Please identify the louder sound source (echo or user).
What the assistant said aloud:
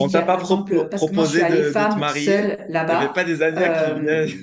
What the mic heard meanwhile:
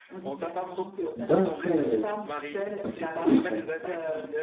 user